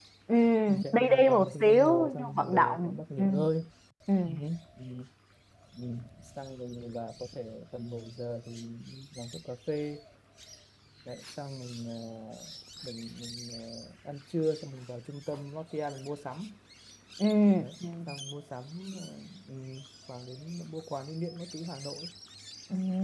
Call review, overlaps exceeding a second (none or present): present